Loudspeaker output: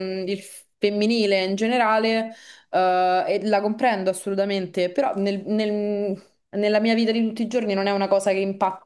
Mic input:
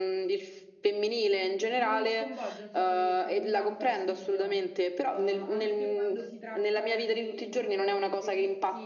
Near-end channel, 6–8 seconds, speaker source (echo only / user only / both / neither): both